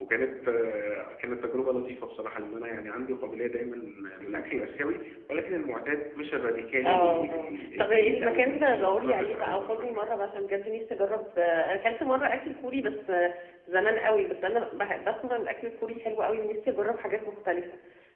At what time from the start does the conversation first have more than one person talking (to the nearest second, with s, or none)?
7 s